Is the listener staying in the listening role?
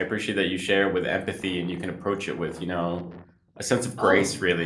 No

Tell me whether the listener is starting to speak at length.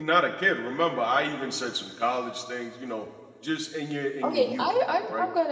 Yes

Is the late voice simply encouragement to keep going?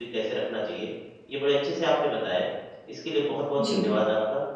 Yes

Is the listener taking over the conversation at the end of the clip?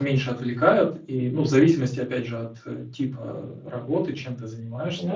No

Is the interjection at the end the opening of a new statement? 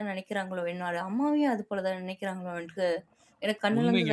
Yes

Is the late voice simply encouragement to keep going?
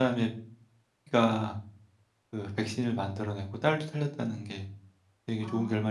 No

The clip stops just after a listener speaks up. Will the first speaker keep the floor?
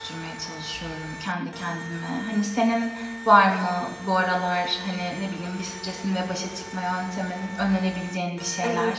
No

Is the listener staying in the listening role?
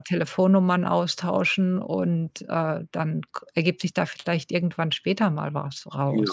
No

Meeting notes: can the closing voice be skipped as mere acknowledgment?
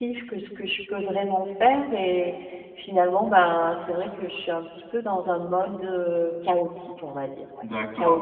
No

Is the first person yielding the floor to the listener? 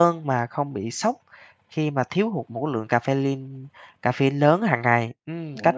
Yes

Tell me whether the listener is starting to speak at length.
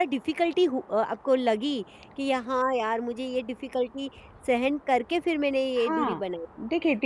Yes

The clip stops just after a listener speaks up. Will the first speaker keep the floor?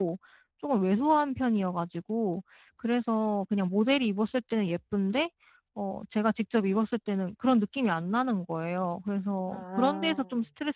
Yes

